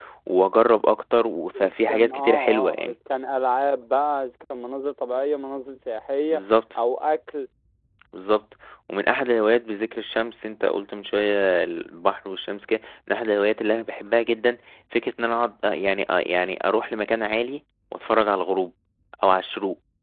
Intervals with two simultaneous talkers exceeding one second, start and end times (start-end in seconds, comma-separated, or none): 1.6-3.0